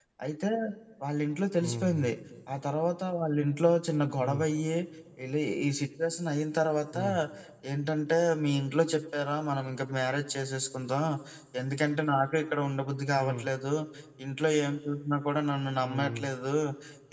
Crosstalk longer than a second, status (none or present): none